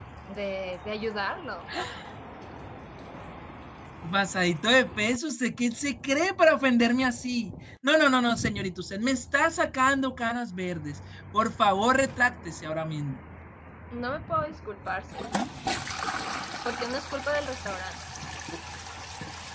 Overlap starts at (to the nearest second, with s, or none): none